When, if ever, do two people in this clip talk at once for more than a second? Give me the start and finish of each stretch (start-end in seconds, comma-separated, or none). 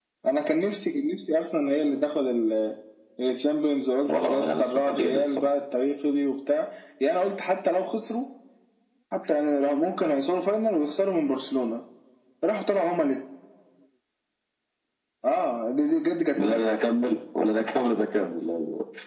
4.1-5.5